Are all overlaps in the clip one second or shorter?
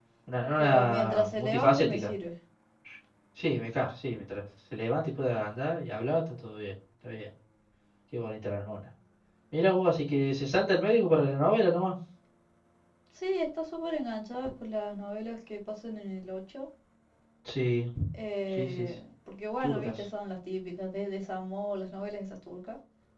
No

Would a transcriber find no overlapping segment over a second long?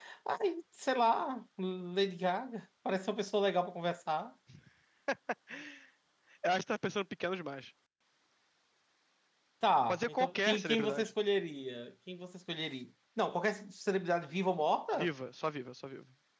No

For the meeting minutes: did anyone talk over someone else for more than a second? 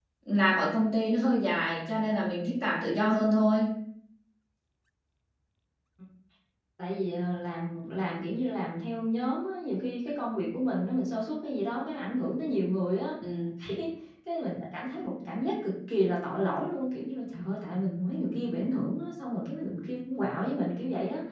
No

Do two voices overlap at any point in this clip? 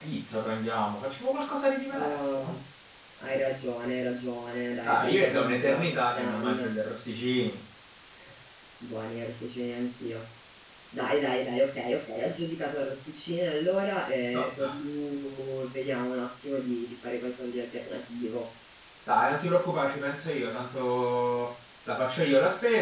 Yes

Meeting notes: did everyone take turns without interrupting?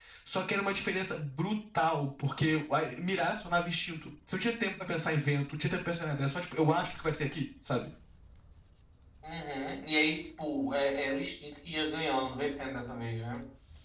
Yes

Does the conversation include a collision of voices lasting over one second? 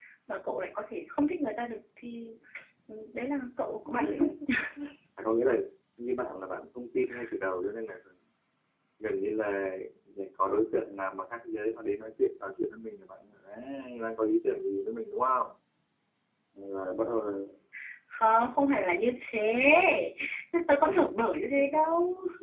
No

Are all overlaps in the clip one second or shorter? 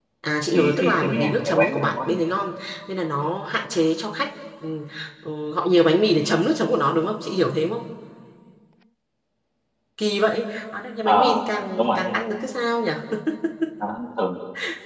No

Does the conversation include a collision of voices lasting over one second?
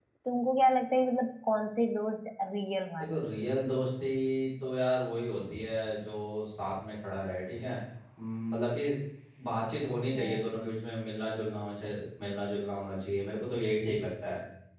No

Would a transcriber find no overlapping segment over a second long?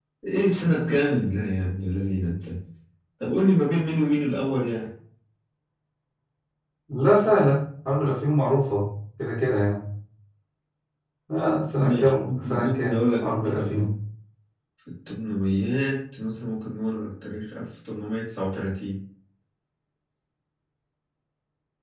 No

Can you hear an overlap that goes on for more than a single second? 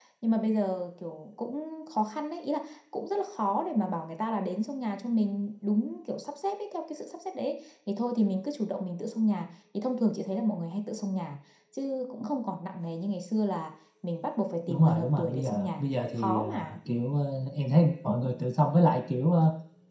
Yes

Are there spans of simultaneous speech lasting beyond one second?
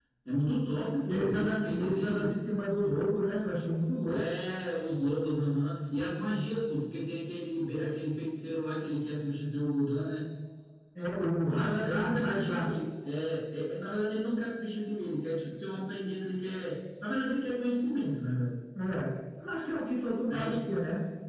Yes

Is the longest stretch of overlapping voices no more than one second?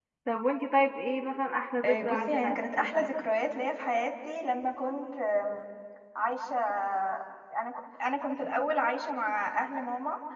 No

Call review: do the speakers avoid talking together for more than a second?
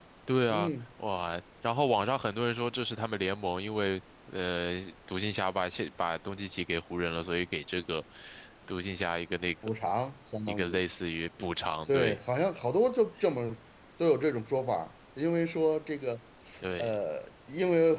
Yes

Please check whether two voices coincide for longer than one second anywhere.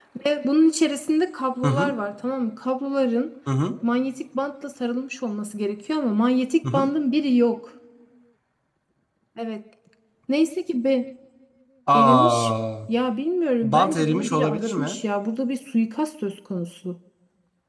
Yes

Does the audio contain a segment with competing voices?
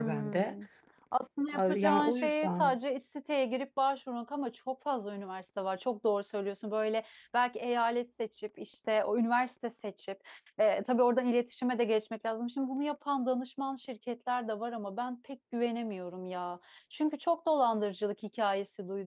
Yes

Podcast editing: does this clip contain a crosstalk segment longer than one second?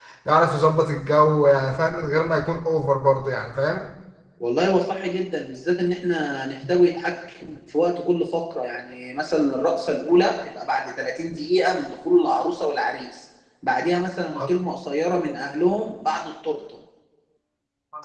No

